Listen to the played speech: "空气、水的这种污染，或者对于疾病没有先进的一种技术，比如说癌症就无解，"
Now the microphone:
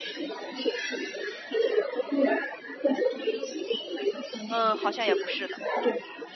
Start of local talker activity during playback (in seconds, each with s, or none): 4.5 s